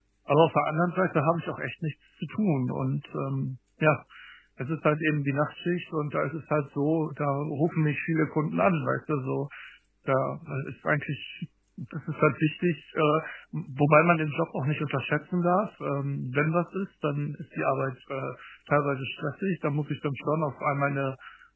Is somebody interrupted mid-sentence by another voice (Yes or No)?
No